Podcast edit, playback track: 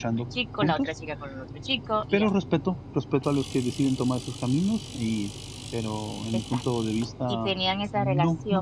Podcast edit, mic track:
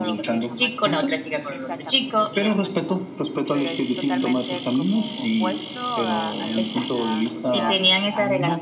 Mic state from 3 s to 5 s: both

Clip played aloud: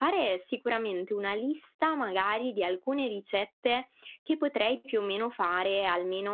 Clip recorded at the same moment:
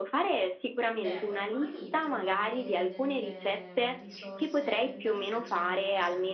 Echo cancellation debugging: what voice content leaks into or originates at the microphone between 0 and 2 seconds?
both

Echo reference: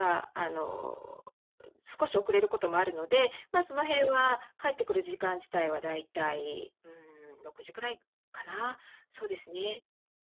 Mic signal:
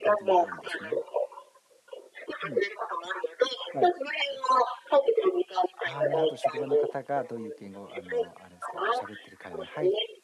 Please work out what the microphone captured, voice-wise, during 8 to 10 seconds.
both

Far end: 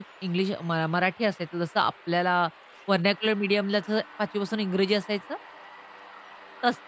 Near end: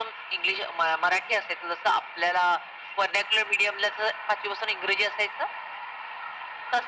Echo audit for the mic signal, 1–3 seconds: echo only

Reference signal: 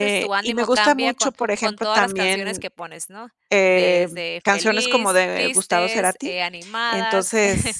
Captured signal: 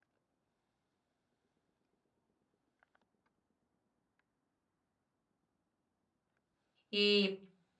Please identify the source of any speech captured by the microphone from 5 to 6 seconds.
neither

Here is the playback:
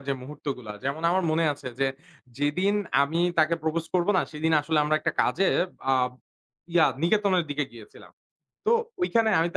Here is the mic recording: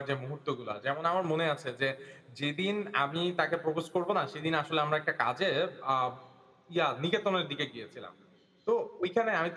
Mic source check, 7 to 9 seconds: echo only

